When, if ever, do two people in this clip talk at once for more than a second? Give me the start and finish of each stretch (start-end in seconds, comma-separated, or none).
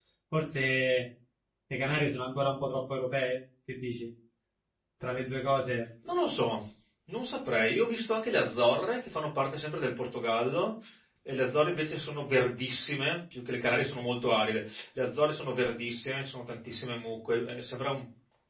none